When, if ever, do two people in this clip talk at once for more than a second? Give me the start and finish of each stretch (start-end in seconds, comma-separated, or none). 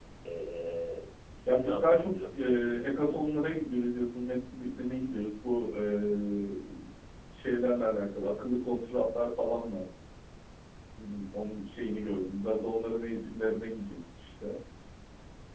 1.5-3.2